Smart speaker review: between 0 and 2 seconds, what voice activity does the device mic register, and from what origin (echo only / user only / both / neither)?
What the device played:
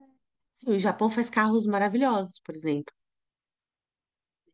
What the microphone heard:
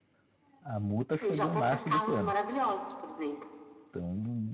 both